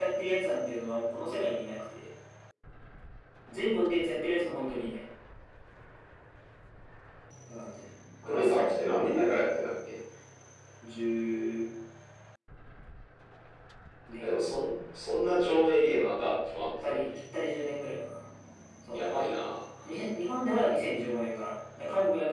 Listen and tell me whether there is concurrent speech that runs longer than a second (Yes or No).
No